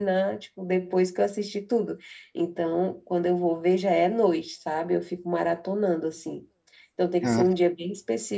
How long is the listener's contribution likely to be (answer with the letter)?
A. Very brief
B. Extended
A